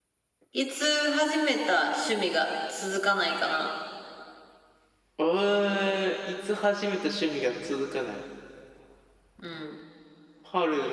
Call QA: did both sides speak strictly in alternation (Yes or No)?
Yes